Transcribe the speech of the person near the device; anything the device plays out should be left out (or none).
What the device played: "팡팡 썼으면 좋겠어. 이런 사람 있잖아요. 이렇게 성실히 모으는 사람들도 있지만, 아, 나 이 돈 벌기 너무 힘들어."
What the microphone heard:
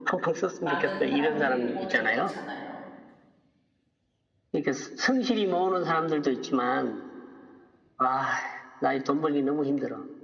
많은 사람들이 돈을 넣잖아요.